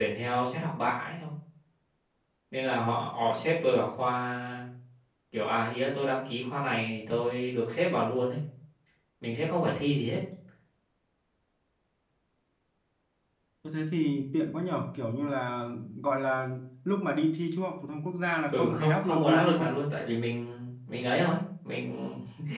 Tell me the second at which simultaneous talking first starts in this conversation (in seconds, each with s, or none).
18.5 s